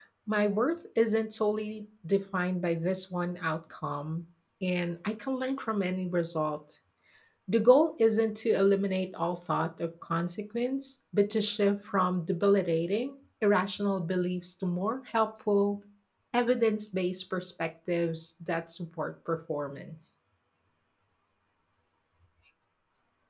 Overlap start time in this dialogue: none

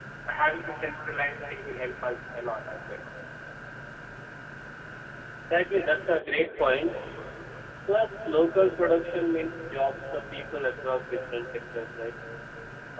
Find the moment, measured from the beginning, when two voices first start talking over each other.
none

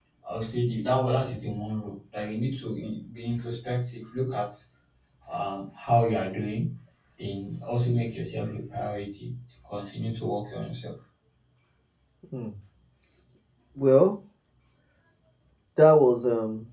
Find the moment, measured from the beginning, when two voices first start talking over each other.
none

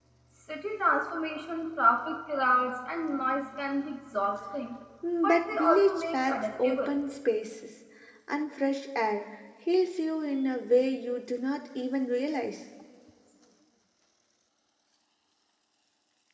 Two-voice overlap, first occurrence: 5.2 s

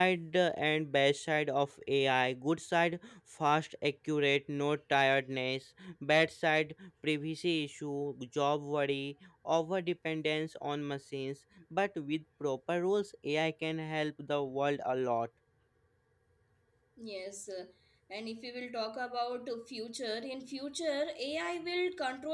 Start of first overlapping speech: none

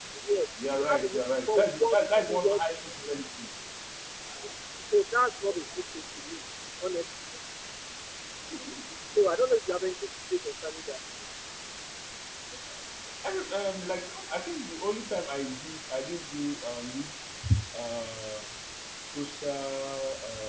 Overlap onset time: 0.7 s

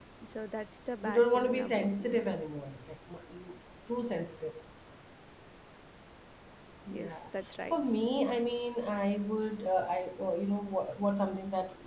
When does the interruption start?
1.0 s

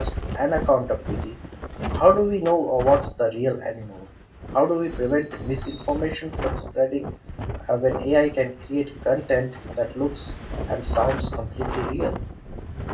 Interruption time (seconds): none

